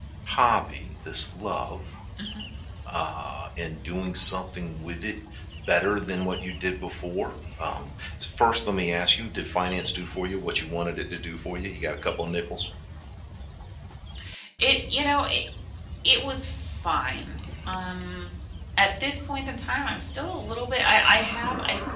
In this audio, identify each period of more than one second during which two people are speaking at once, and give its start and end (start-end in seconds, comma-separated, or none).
none